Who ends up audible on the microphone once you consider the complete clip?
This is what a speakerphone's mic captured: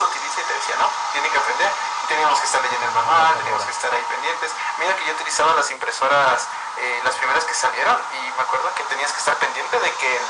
both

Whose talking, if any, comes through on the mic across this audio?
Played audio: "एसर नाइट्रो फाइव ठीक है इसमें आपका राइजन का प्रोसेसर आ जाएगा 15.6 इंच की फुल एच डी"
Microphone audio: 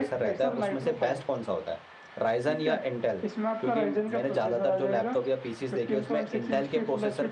both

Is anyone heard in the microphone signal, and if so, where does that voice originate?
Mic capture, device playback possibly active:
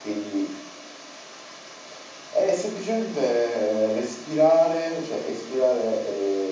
echo only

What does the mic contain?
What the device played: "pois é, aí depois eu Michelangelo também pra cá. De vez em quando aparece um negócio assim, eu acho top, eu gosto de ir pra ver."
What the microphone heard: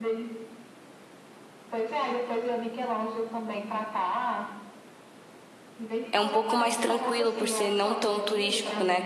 both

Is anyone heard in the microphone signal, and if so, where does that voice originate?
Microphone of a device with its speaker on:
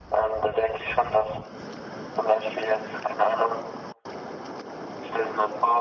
echo only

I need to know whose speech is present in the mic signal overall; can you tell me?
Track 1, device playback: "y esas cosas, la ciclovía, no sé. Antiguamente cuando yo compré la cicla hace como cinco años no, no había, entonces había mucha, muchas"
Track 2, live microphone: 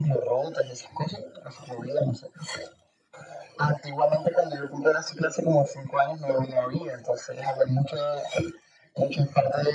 echo only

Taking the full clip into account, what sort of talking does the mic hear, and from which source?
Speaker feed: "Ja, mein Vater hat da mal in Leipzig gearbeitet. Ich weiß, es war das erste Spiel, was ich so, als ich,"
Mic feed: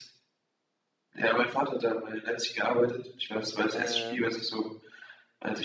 both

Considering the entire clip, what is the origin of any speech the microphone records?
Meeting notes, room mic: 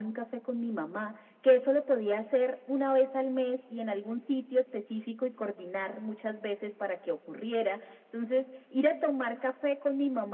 echo only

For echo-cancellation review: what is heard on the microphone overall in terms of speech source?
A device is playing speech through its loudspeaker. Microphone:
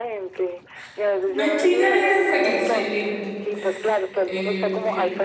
both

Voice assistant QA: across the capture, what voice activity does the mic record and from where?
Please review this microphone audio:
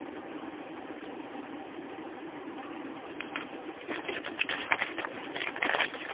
neither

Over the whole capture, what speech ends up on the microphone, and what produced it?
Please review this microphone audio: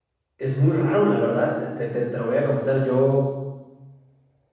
user only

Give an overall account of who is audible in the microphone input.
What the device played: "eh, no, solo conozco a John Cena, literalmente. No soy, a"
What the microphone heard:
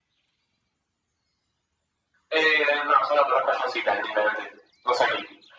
echo only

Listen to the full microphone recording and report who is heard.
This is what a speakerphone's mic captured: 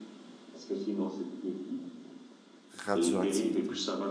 both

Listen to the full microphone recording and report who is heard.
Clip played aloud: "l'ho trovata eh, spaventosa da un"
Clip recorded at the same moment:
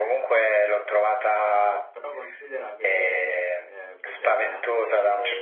both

